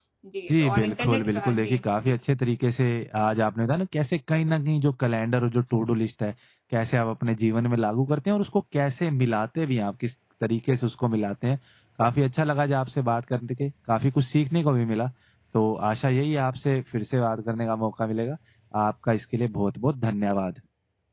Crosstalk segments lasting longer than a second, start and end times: 0.5-2.1

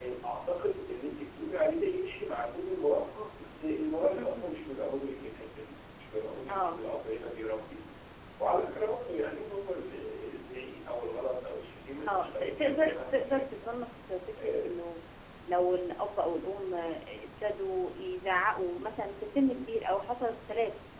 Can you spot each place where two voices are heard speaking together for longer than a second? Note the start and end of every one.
12.1-13.7

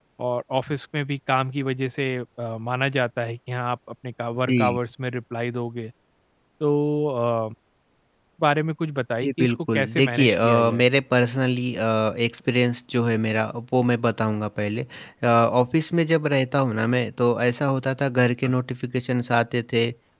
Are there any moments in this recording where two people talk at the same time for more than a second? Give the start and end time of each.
9.2-10.8

